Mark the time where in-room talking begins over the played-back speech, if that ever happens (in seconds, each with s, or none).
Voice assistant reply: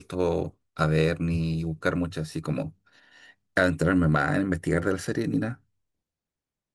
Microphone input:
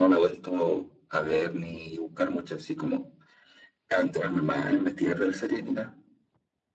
none